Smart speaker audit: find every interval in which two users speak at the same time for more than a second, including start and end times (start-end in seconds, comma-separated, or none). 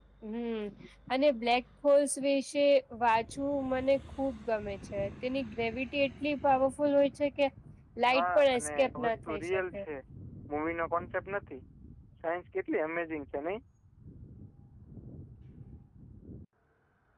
8.1-9.8